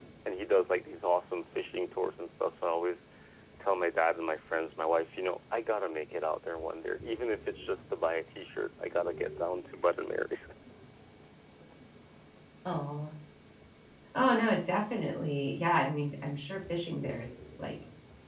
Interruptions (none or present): none